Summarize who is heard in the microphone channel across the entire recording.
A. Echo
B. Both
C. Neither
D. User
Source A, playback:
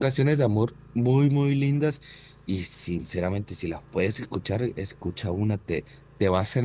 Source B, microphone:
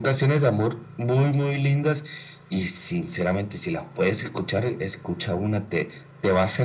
A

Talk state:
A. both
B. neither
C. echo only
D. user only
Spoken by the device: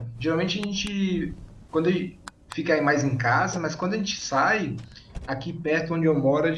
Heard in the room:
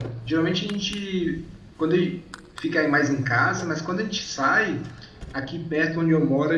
C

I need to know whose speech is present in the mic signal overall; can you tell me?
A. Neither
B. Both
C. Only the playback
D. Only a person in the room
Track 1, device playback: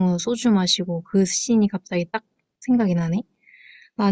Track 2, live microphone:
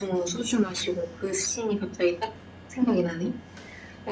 C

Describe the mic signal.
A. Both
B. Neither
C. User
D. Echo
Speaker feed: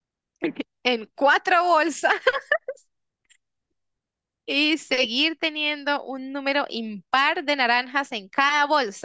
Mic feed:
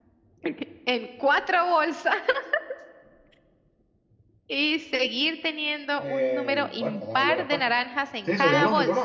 A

